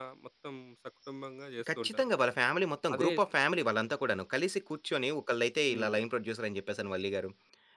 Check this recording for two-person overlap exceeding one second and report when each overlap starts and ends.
none

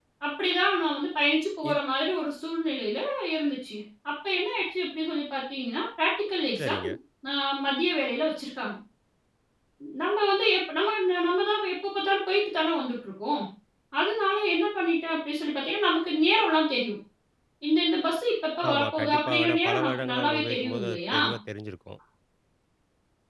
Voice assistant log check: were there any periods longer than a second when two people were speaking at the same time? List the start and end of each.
18.7-21.2

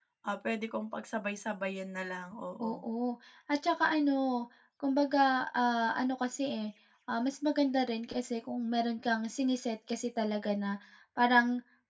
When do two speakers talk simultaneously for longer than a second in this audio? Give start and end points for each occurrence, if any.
none

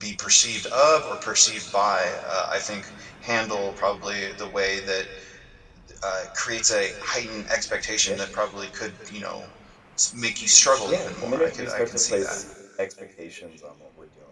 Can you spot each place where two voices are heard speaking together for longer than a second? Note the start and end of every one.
10.8-12.4

